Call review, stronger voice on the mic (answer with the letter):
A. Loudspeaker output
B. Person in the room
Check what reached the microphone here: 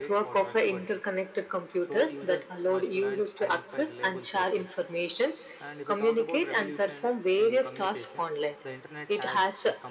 A